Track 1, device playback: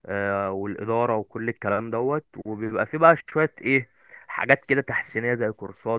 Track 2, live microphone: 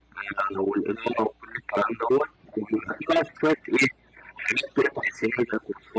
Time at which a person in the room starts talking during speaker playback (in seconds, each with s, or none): none